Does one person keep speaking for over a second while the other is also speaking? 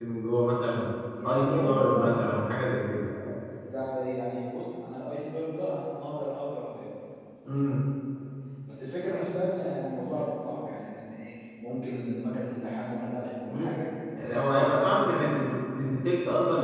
Yes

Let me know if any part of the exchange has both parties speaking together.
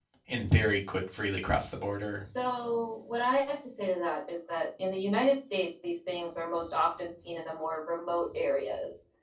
No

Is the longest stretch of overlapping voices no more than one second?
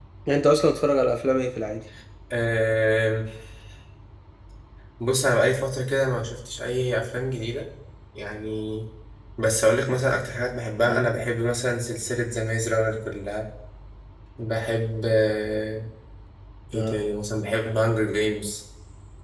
Yes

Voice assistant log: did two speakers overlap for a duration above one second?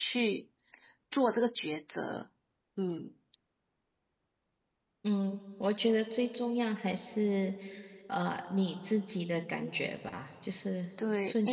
No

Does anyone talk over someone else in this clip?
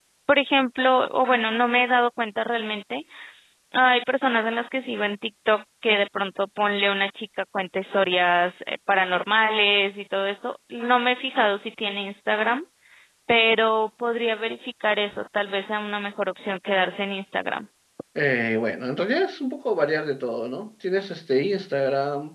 No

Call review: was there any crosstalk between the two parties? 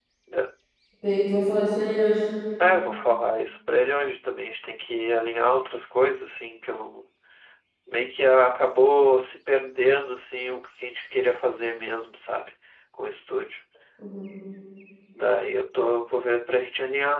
No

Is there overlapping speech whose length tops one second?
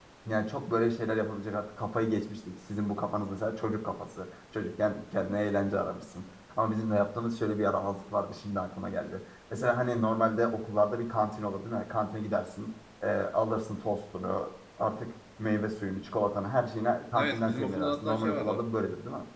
Yes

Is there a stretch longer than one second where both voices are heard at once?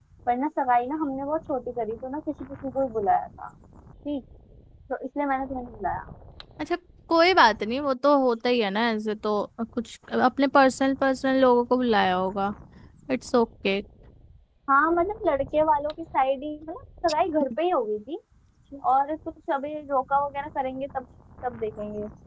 No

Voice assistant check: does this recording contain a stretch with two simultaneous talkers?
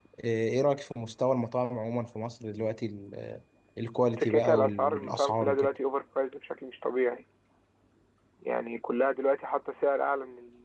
Yes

